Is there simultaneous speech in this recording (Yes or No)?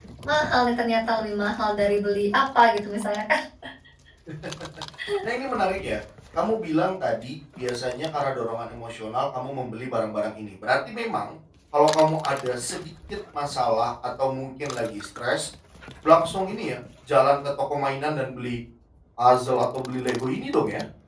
No